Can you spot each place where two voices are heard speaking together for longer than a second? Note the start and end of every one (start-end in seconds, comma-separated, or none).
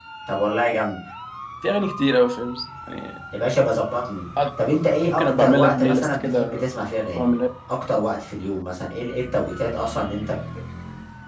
5.1-6.6